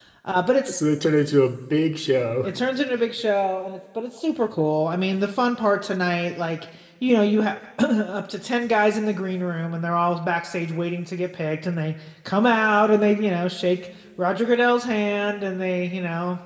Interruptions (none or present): none